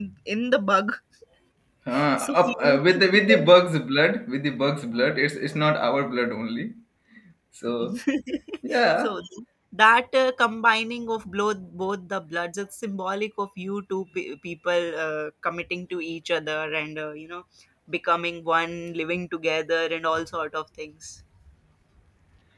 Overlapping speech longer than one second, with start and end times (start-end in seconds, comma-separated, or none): 2.2-3.5